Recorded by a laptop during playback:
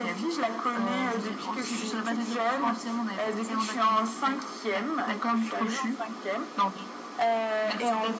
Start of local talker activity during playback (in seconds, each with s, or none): none